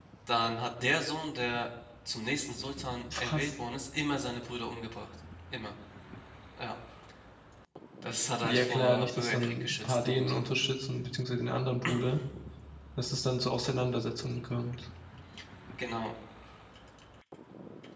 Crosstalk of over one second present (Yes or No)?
Yes